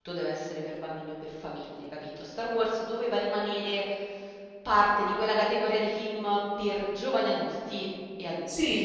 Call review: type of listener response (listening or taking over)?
taking over